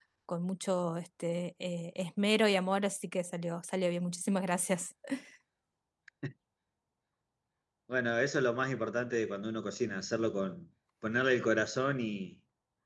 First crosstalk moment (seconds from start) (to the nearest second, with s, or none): none